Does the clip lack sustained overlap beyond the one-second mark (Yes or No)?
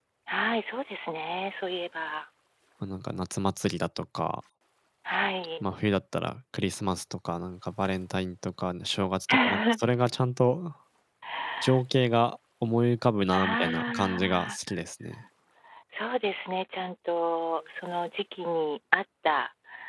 No